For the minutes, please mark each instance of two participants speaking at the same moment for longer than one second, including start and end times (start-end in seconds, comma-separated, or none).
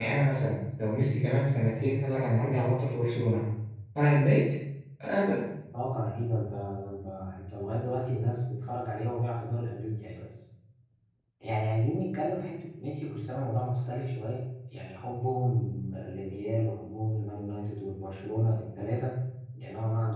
none